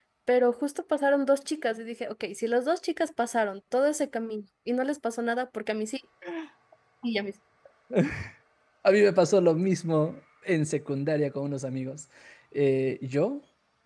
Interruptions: none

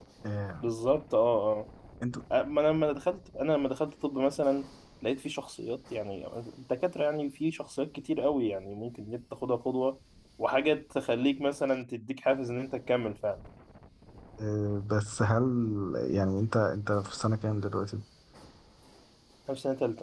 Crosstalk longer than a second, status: none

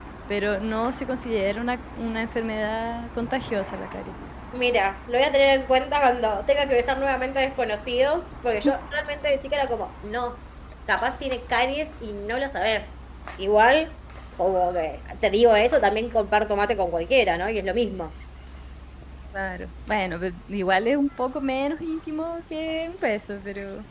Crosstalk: none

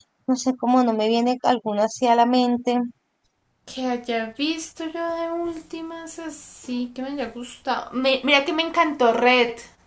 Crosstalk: none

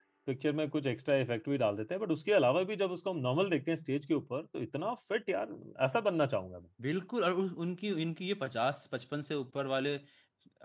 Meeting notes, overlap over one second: none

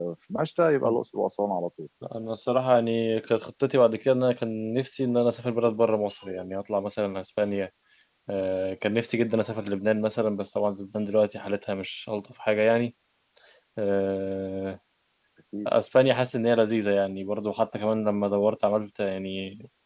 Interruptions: none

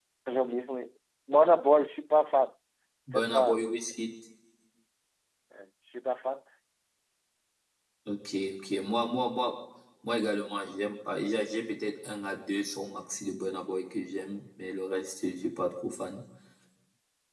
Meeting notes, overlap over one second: none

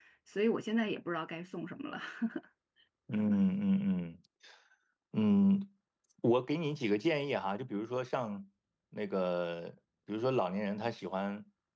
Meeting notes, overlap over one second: none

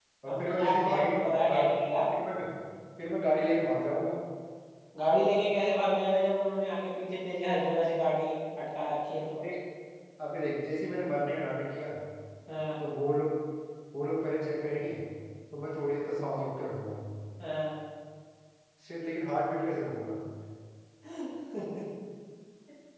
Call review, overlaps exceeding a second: present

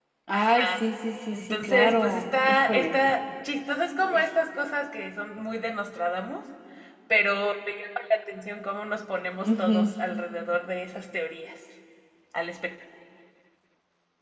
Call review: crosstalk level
present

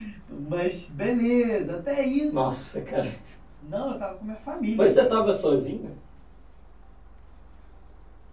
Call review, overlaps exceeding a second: none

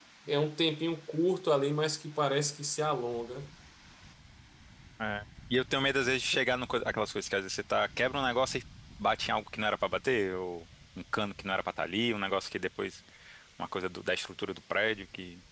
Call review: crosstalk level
none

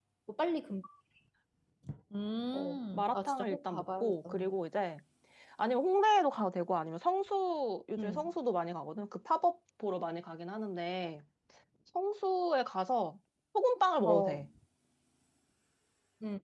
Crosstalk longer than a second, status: present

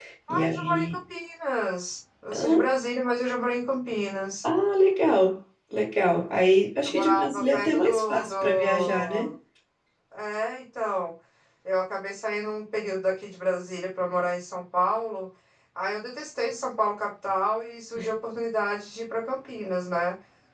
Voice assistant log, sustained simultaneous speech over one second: present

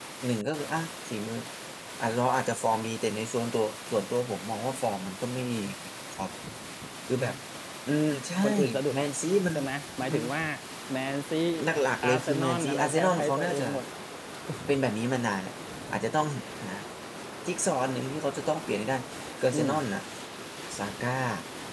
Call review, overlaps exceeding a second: present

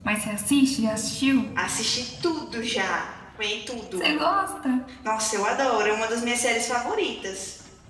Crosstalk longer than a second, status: none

